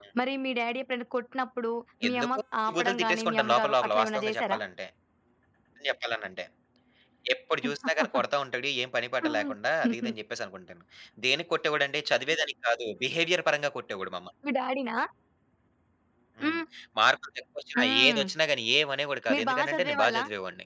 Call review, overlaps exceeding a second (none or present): present